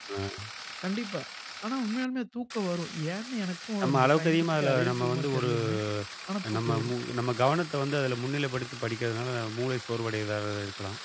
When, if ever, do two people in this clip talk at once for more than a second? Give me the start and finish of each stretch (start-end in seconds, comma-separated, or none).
3.8-5.5